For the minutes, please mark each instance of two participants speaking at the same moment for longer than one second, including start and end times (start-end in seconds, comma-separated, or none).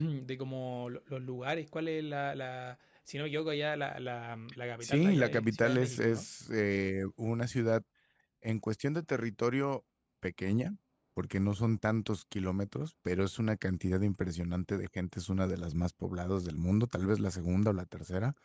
4.8-6.3